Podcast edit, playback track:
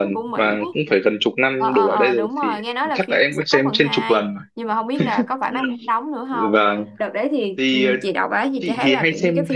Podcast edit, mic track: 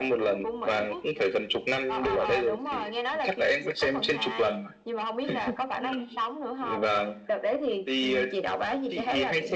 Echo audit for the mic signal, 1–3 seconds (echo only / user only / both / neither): echo only